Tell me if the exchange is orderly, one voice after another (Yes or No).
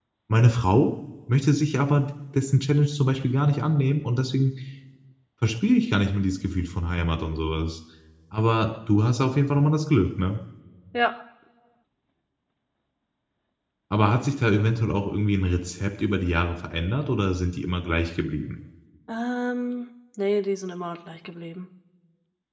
Yes